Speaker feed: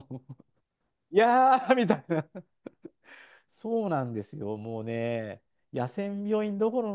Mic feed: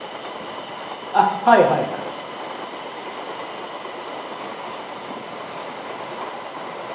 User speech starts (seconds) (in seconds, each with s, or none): 1.1 s